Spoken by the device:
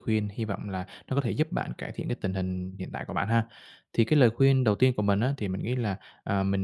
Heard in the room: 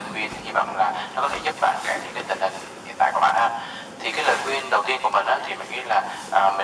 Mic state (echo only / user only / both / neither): echo only